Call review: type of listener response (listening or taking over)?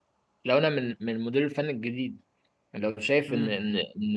listening